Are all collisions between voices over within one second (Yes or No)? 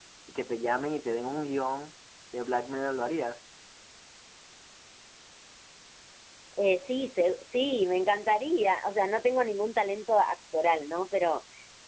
Yes